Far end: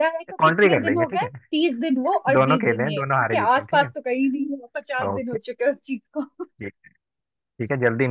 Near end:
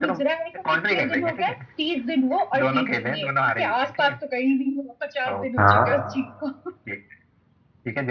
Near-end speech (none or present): present